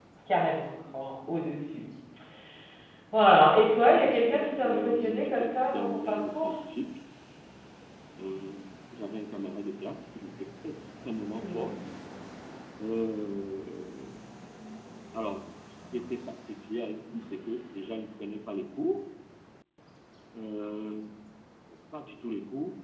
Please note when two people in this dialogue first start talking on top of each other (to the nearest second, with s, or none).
4 s